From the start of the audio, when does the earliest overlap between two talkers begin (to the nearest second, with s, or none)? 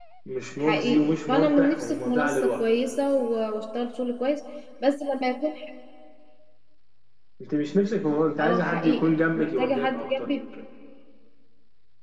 1 s